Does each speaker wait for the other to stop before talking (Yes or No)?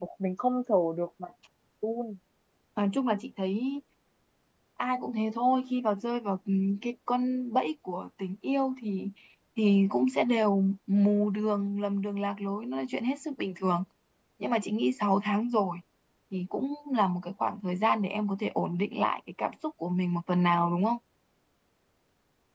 Yes